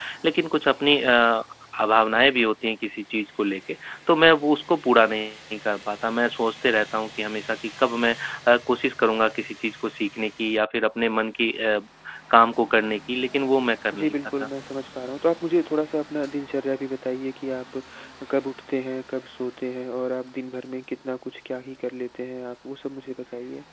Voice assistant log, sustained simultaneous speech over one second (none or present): none